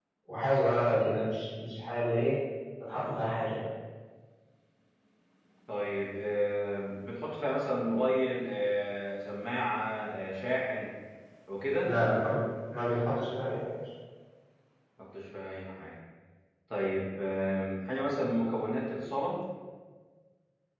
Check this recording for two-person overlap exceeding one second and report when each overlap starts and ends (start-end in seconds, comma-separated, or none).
none